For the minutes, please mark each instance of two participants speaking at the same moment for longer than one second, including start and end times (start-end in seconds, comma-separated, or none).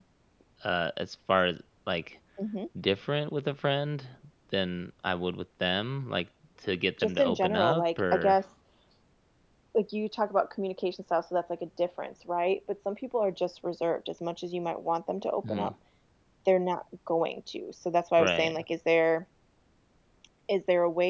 7.0-8.4